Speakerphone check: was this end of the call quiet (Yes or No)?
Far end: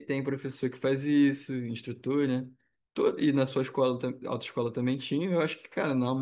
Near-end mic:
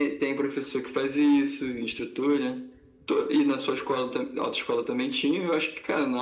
Yes